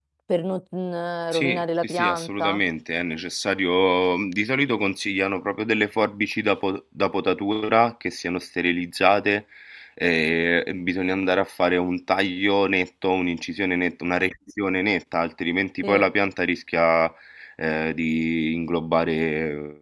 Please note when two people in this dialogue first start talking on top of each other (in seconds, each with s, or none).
1.3 s